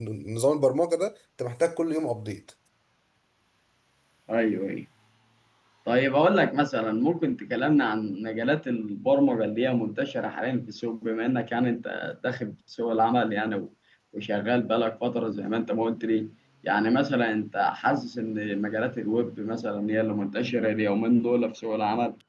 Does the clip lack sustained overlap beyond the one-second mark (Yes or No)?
Yes